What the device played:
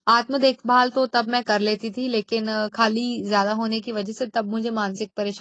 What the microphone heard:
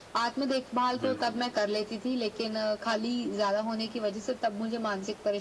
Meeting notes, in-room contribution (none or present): present